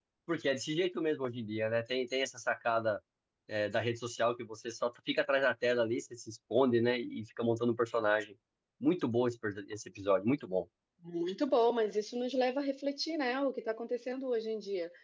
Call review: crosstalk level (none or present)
none